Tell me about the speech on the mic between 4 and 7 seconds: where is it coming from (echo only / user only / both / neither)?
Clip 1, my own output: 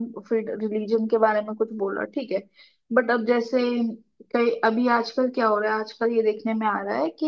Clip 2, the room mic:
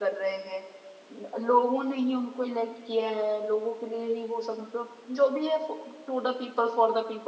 user only